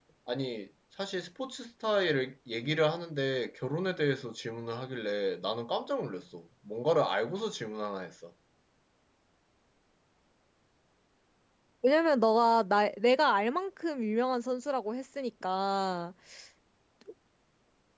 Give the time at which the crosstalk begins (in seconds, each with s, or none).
none